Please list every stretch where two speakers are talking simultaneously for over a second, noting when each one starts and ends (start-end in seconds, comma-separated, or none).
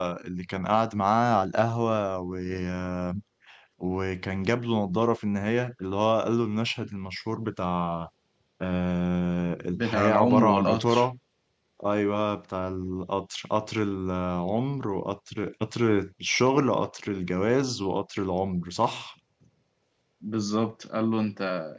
9.8-11.1